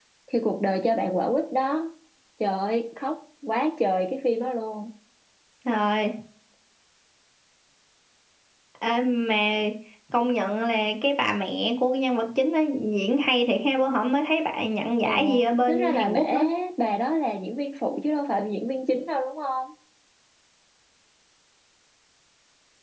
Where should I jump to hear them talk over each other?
15.1 s

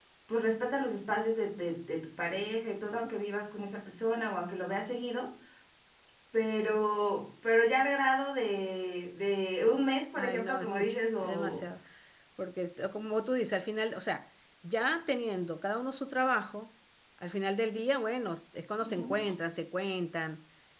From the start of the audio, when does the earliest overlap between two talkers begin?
10.2 s

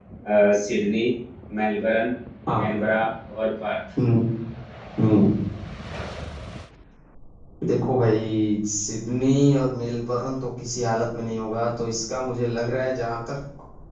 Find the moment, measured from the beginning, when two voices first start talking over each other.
none

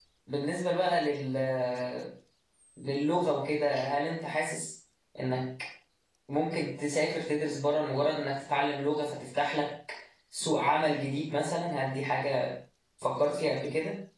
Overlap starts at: none

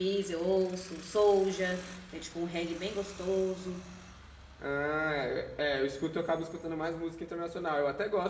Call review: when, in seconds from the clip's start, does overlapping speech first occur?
none

